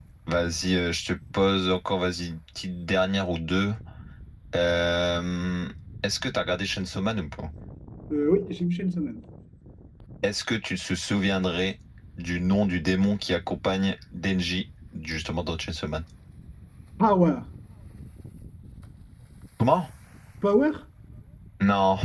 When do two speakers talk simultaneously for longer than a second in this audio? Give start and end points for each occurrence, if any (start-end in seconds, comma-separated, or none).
none